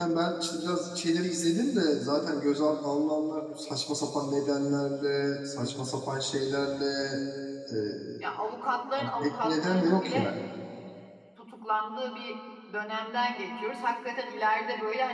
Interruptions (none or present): present